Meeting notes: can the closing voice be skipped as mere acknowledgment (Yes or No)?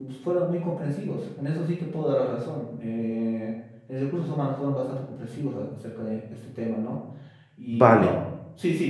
Yes